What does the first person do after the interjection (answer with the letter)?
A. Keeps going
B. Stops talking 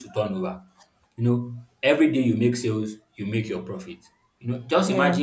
A